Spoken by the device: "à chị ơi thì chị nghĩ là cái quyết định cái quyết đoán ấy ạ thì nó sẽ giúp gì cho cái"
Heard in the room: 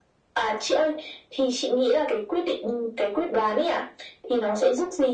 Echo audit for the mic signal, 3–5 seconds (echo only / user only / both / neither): echo only